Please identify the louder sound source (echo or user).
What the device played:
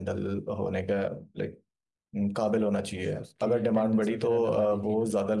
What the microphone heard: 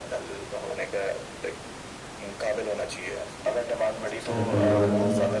user